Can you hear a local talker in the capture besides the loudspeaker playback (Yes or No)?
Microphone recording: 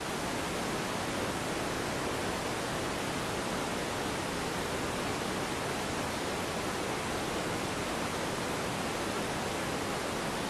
No